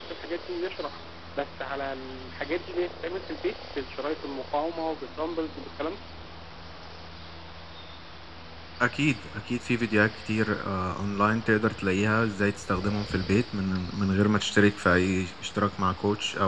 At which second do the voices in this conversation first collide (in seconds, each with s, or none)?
none